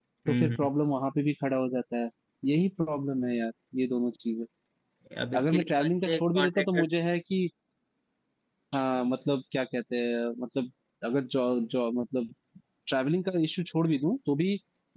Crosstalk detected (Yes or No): Yes